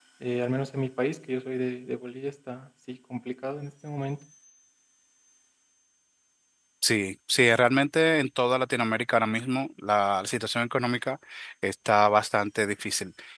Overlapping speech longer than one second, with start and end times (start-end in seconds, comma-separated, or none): none